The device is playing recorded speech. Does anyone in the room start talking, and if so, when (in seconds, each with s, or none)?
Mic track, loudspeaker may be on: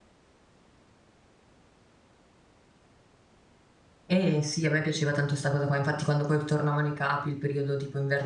4.1 s